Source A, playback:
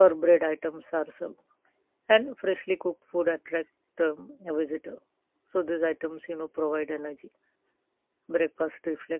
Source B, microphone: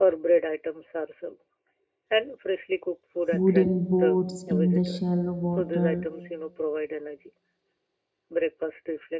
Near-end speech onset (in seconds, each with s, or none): 3.3 s